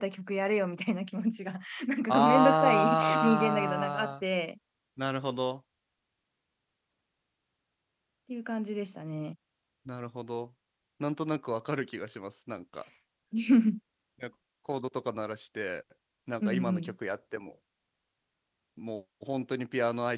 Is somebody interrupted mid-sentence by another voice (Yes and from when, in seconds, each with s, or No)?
Yes, from 2.1 s